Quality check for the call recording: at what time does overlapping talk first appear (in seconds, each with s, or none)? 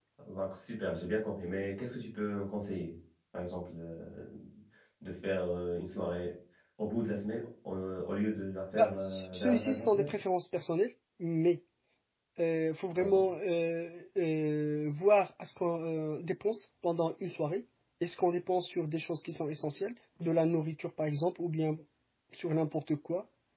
8.7 s